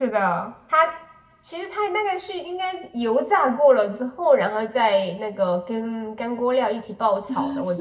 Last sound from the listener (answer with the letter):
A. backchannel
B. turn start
B